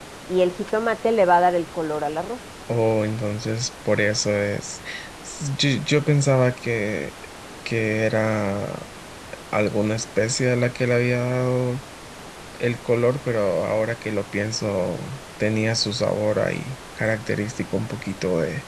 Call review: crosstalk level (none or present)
none